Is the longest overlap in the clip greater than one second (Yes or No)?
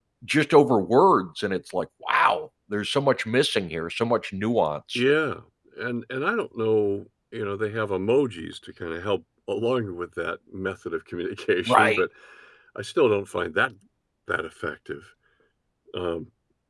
No